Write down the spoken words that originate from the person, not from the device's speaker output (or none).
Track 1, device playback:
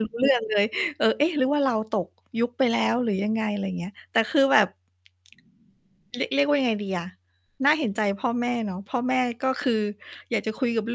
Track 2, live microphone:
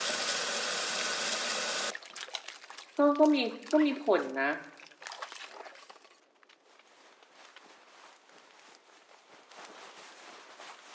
ก็ ก็มี ก็มีผลนะ